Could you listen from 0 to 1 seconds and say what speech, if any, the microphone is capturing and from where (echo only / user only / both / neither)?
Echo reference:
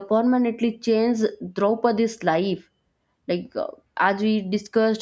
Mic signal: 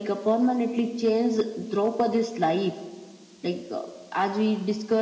echo only